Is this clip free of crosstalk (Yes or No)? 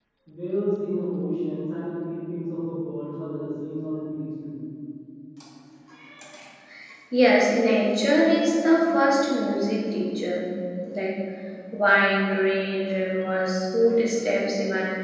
Yes